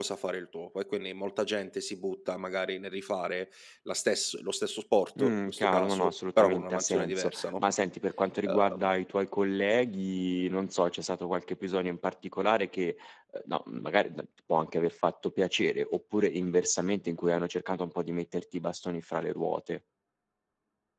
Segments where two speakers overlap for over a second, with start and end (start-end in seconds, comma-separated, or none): 5.2-7.6